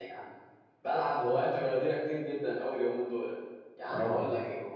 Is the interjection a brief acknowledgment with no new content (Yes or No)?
Yes